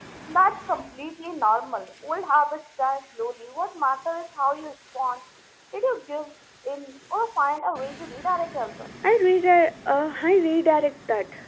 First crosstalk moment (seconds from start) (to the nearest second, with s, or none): none